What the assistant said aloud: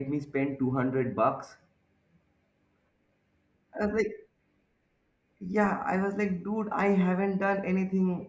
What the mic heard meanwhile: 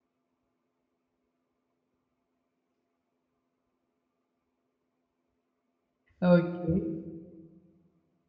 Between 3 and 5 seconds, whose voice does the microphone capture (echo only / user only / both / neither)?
neither